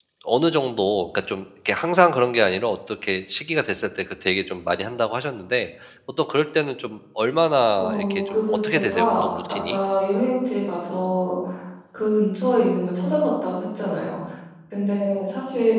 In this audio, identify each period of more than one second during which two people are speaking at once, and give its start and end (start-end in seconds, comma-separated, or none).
7.8-9.8